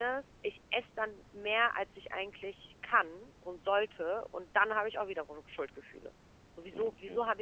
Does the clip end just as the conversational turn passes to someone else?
No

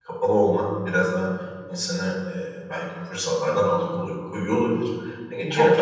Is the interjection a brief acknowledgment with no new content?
No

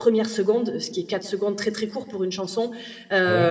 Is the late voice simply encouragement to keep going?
Yes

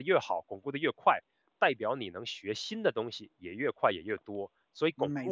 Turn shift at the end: Yes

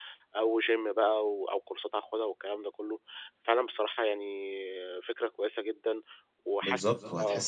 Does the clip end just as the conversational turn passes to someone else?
Yes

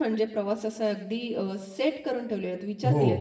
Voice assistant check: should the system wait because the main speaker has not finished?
Yes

